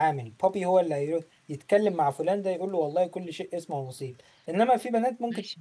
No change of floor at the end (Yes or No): No